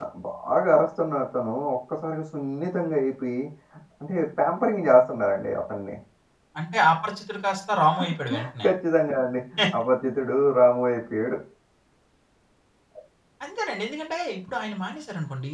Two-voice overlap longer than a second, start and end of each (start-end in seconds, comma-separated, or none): none